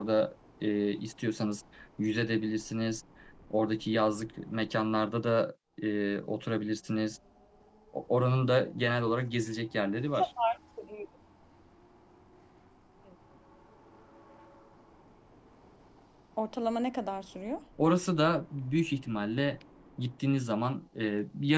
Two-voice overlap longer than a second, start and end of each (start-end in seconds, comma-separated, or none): none